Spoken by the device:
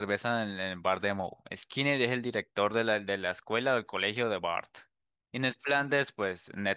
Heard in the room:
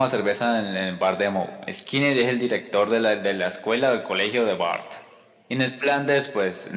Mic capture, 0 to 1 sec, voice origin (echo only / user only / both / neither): echo only